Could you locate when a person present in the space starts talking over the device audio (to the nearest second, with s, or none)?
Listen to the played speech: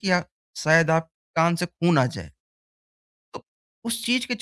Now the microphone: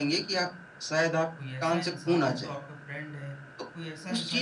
1 s